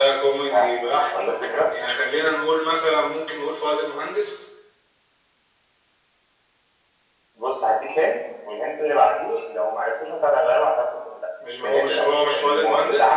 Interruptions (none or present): present